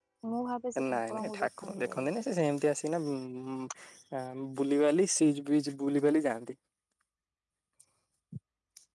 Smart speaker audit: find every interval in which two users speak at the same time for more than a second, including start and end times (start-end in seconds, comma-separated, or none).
0.9-2.1